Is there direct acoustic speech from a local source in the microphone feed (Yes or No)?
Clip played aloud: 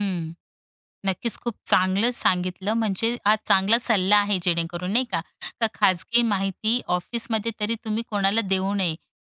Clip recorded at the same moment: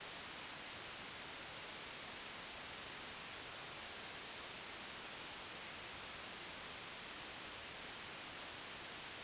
No